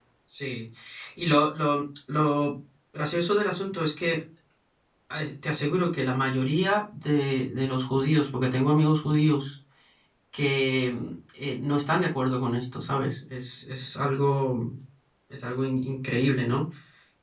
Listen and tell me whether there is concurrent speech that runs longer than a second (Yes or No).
No